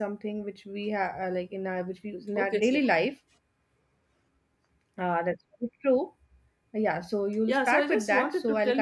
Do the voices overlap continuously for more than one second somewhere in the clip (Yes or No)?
Yes